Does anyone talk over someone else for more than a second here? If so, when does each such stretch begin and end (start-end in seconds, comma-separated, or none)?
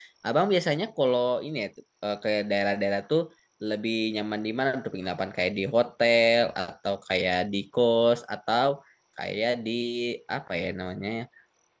none